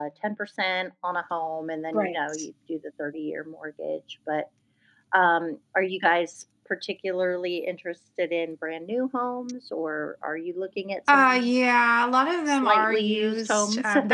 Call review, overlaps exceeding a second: present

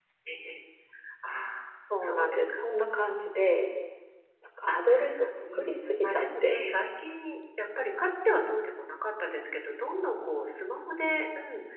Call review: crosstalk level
present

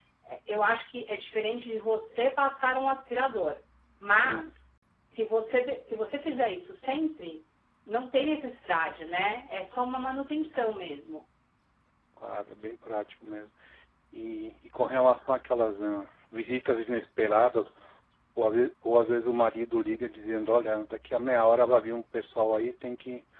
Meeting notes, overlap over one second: none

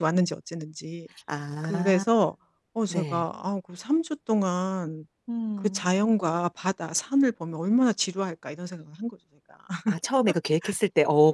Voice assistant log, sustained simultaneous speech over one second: none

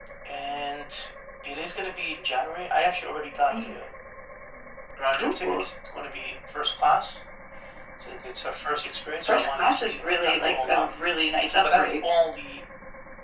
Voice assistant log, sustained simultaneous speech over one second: present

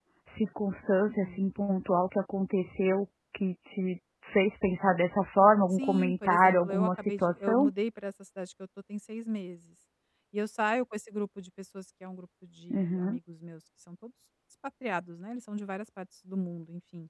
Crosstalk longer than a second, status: present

